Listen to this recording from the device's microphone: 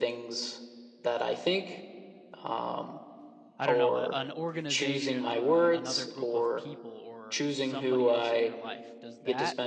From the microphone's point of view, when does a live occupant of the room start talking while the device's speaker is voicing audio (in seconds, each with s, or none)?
3.6 s